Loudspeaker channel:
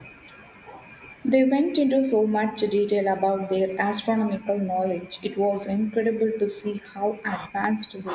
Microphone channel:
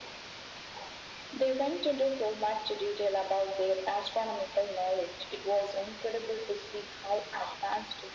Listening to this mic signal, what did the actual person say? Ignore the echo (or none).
none